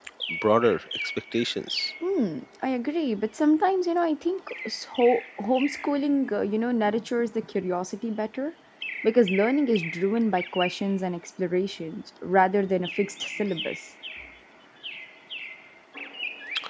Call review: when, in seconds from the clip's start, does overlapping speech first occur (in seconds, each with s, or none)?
none